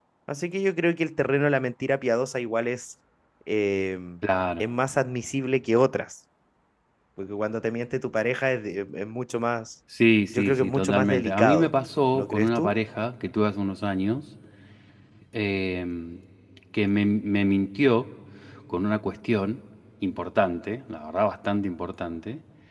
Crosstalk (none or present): present